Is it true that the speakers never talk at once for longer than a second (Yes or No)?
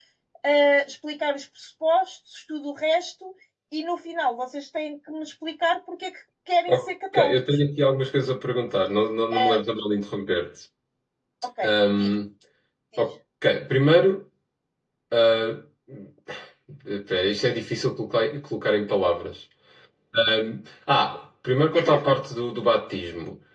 Yes